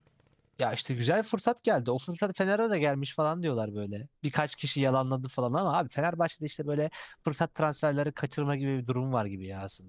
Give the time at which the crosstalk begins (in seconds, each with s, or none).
none